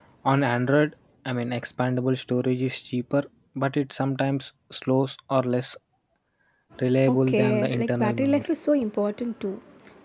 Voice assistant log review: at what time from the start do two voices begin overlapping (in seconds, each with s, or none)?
7.0 s